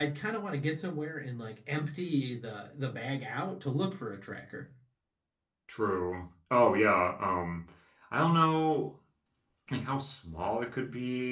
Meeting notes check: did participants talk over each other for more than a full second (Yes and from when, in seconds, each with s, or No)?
No